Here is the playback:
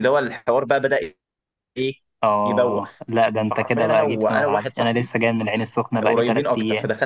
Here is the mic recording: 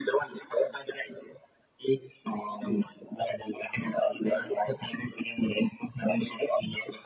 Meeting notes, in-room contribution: present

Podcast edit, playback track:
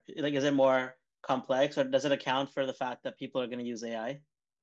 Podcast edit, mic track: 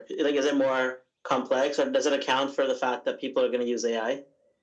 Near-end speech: none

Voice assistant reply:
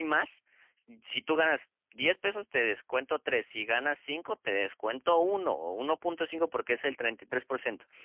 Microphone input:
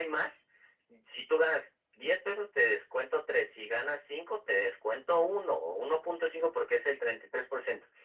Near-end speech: none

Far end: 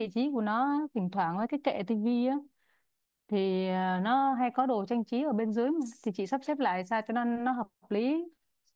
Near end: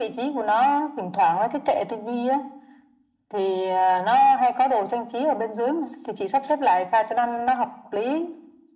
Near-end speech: none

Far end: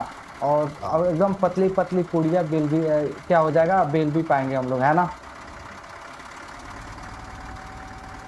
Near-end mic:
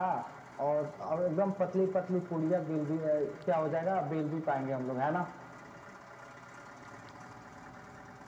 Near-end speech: none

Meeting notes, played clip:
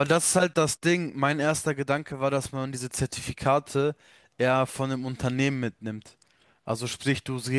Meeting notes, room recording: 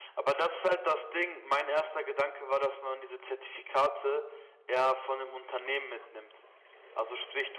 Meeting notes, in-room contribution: none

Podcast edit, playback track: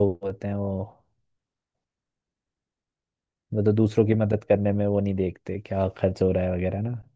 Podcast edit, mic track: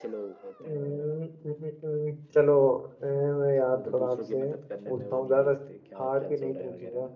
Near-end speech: present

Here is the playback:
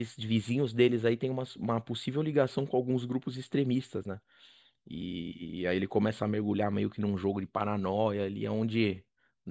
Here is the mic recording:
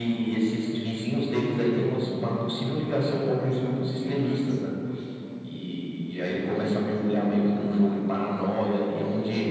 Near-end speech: present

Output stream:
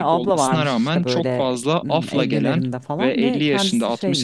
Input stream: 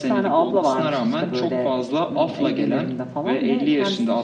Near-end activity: none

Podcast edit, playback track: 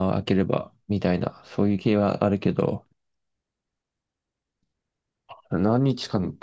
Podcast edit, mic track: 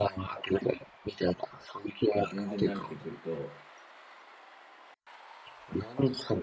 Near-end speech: present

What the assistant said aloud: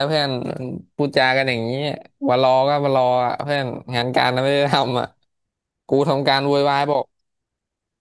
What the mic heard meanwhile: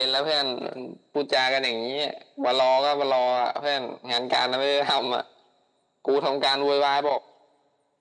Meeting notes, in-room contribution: none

